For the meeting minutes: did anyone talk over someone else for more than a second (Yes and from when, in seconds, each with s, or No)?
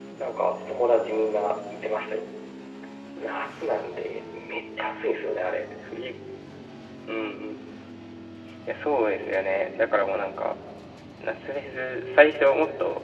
No